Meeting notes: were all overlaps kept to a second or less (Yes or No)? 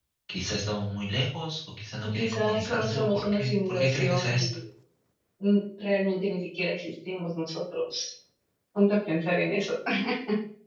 No